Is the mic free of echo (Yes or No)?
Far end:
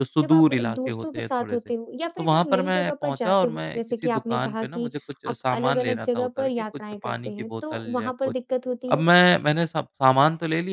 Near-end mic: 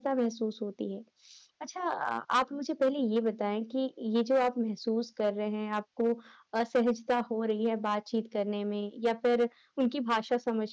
Yes